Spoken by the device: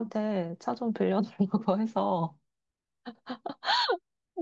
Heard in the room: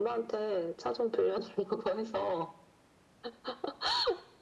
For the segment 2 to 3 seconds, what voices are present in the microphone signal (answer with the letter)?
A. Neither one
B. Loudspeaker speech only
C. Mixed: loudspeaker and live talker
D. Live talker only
B